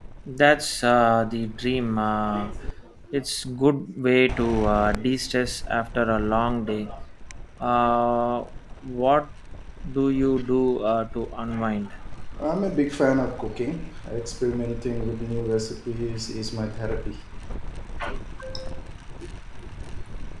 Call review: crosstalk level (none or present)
none